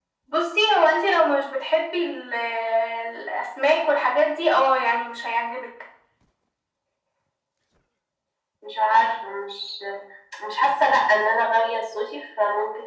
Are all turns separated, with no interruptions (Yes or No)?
Yes